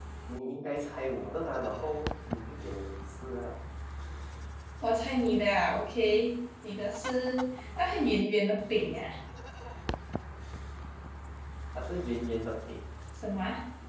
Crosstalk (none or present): none